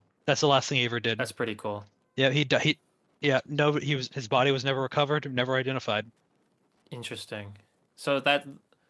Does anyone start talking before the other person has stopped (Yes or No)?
No